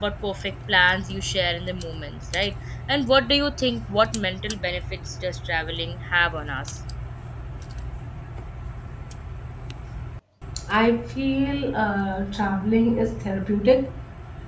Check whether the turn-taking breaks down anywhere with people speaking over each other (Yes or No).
No